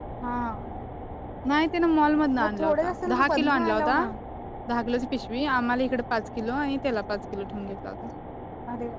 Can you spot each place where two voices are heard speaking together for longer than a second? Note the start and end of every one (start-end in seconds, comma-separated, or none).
2.4-4.0